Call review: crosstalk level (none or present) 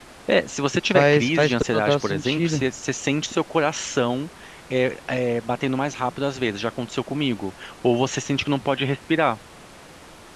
present